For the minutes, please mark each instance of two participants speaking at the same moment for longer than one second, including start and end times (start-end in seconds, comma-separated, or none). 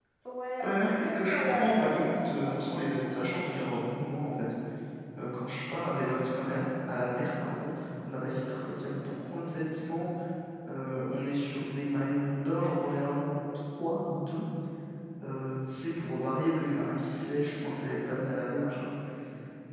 0.6-2.6